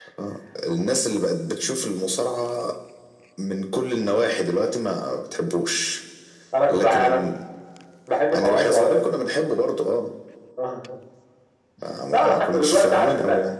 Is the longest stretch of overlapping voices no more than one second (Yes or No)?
No